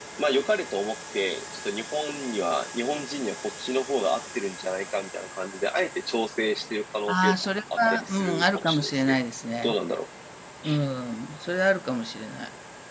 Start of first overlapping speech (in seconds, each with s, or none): 7.1 s